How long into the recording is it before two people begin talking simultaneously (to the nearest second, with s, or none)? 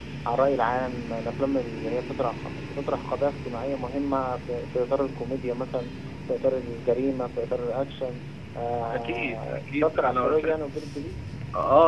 9 s